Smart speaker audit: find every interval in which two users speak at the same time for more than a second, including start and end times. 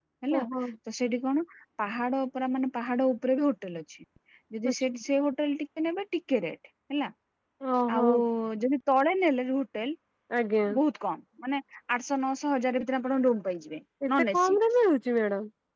none

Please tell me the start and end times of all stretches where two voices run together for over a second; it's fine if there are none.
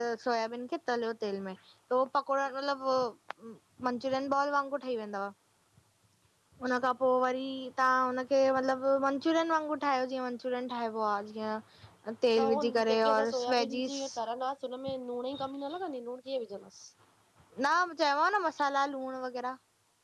12.3-14.0

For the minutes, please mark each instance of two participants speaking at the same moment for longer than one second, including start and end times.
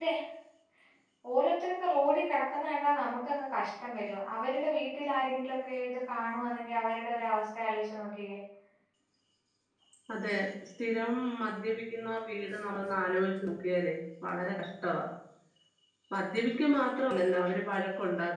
none

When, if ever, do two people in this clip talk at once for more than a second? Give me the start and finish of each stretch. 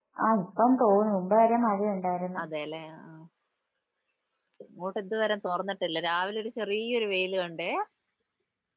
none

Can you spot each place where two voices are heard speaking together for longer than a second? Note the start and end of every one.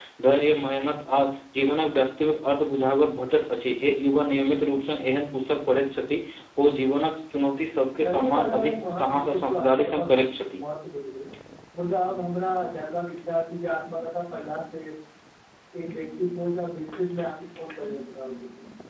8.0-10.6

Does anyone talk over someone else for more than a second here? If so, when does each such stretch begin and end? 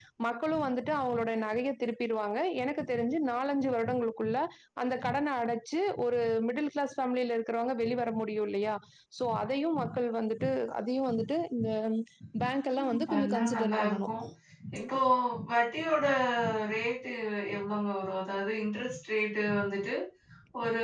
12.8-14.1

